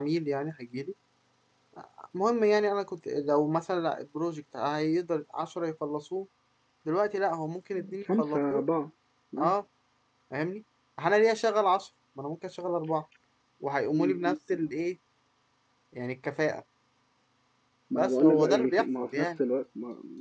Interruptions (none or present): present